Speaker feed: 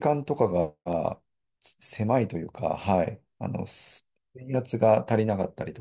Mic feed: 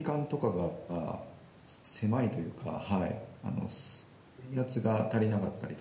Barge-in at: none

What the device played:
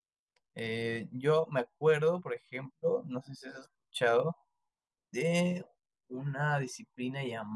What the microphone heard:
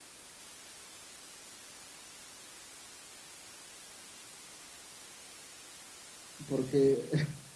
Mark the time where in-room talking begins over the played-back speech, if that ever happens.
6.5 s

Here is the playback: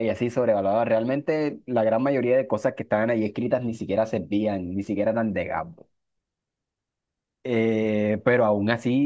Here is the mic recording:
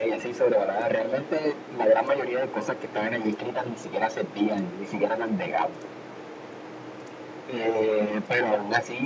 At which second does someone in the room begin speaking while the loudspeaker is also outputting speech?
none

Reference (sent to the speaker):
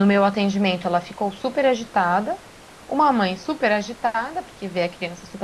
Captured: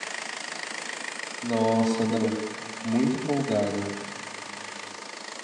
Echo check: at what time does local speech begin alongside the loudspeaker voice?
1.4 s

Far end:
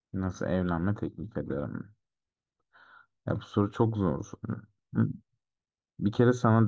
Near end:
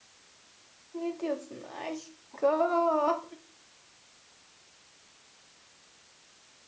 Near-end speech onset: 0.9 s

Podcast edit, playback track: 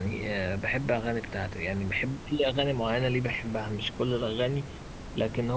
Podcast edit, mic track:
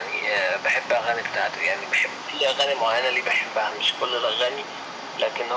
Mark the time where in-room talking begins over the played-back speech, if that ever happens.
none

